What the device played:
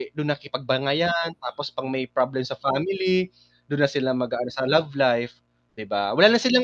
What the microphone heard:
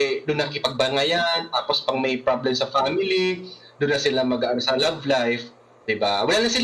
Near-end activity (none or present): none